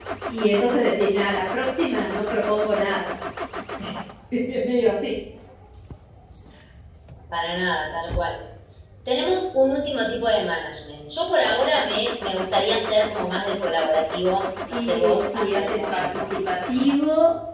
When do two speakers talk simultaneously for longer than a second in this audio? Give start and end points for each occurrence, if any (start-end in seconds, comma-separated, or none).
14.7-16.3